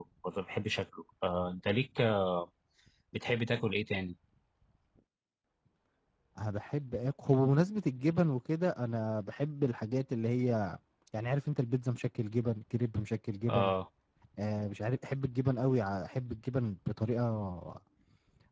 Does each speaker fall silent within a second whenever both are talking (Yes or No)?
Yes